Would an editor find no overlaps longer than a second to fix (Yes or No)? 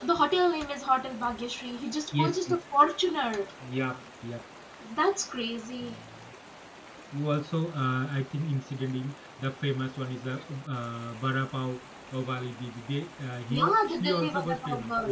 No